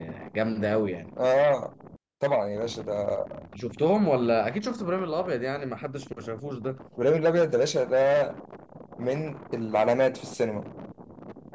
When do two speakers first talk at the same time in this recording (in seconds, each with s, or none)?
none